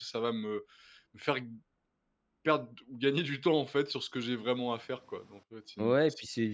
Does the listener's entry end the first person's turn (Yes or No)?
Yes